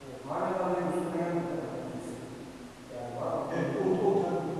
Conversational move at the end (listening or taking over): taking over